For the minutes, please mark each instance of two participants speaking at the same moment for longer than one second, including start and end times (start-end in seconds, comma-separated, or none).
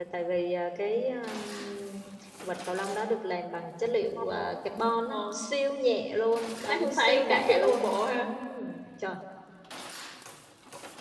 6.7-8.3